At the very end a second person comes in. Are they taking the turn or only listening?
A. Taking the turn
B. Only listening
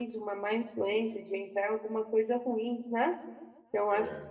B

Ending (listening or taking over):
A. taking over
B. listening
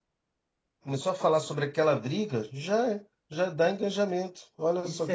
A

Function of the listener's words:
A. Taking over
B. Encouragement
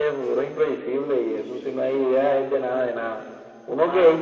B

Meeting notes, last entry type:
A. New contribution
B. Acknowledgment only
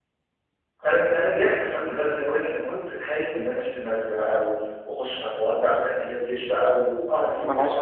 A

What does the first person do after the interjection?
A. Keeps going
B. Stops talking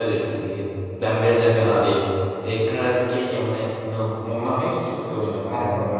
B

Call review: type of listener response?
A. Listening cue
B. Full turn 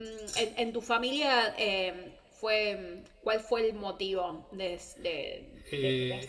B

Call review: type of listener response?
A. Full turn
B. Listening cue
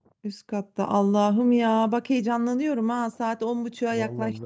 A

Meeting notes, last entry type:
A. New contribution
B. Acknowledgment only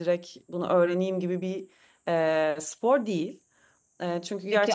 A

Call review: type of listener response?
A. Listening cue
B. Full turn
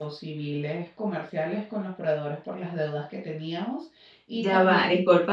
B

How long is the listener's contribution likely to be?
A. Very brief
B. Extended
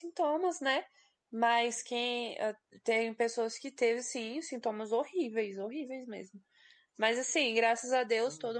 A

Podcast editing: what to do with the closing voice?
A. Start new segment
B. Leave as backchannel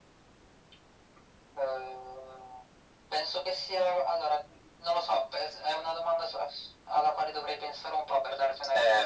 B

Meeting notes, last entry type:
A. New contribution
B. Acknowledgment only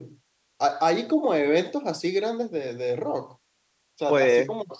B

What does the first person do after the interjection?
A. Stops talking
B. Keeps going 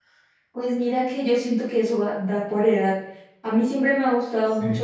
B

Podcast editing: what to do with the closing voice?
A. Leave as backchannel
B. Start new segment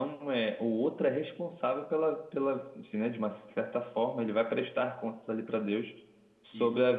A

